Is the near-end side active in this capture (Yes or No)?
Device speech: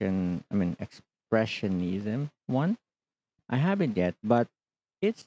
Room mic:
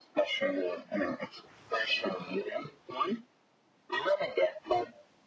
No